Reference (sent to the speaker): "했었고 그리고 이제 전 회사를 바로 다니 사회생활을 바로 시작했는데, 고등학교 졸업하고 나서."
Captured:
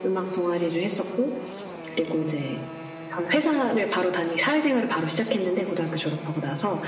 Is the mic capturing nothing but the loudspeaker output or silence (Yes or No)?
Yes